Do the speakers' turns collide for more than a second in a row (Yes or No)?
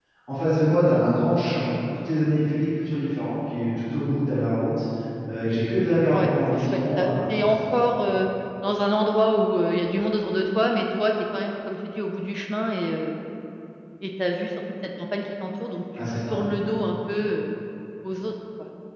Yes